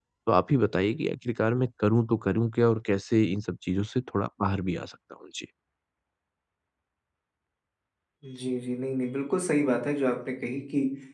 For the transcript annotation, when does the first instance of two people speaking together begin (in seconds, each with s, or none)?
none